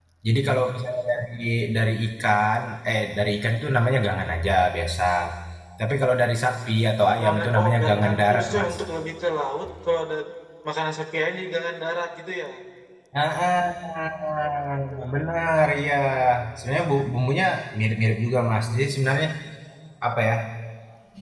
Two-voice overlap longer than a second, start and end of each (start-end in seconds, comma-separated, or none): 7.2-8.7